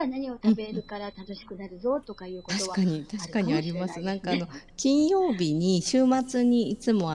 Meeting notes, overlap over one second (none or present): present